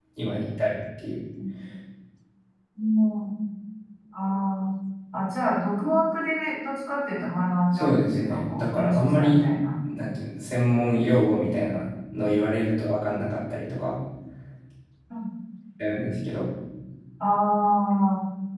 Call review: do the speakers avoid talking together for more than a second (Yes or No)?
No